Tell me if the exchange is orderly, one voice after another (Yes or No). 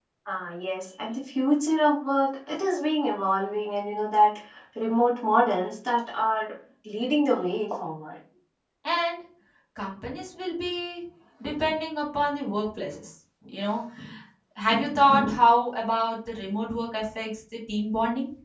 Yes